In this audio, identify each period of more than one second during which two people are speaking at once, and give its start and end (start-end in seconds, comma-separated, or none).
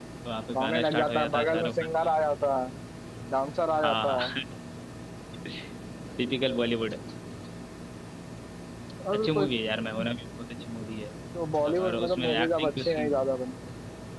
0.6-2.2, 11.7-13.1